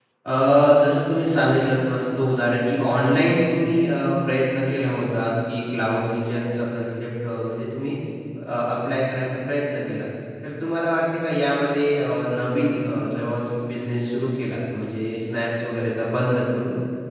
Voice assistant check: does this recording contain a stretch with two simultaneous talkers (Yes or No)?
No